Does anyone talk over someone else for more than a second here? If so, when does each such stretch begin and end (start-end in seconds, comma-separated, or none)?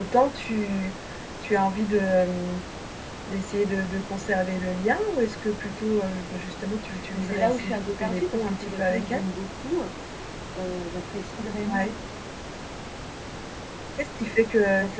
7.1-9.2